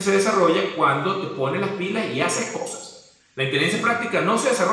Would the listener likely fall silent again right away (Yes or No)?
Yes